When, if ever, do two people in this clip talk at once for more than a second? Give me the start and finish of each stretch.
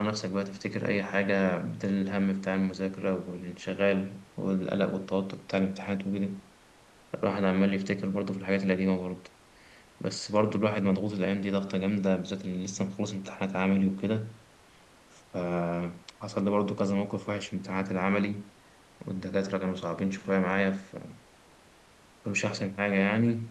none

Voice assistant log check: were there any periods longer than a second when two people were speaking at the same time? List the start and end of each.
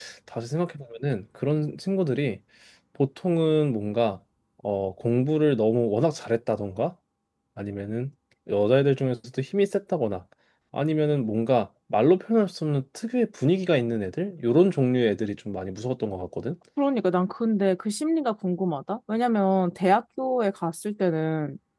none

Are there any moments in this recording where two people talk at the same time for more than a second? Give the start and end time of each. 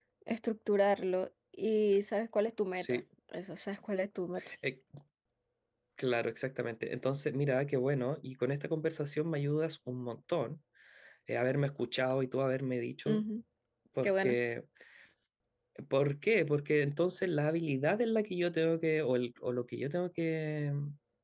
none

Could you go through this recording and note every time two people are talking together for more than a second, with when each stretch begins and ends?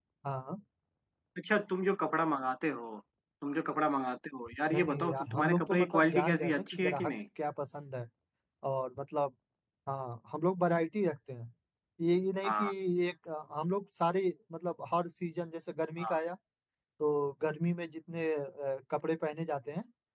4.7-7.1

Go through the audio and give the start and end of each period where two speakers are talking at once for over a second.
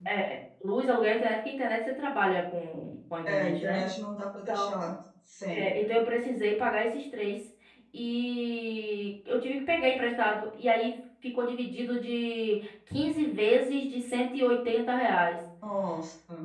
none

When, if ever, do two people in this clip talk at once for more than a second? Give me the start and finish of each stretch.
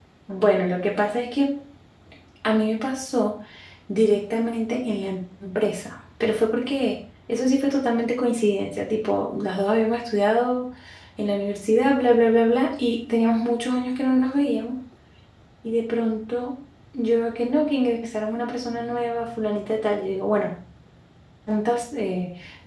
none

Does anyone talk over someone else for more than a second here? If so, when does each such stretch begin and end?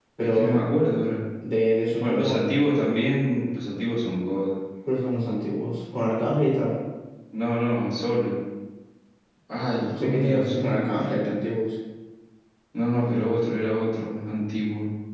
10.0-11.3

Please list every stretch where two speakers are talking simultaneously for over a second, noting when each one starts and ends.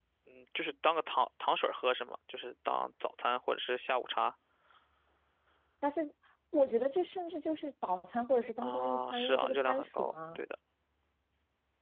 8.6-10.4

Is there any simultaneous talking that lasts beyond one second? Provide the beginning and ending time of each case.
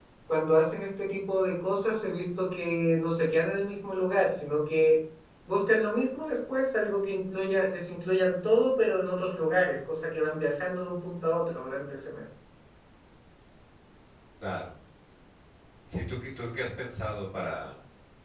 none

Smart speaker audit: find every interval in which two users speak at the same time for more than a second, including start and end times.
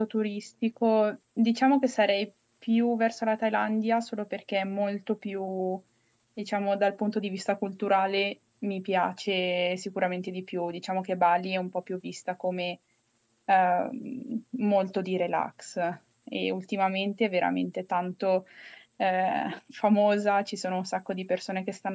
none

